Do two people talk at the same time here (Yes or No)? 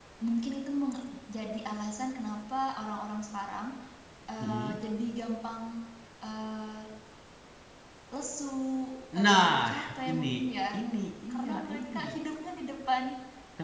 Yes